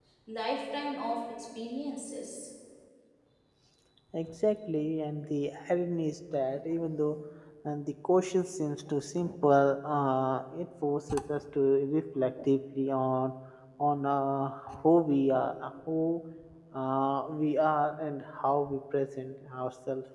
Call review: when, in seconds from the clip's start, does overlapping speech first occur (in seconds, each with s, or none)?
none